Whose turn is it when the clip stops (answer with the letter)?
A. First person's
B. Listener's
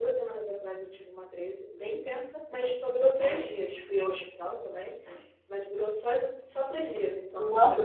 B